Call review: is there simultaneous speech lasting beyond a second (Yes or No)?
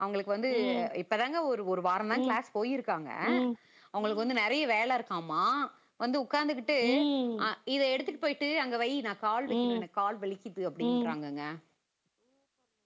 No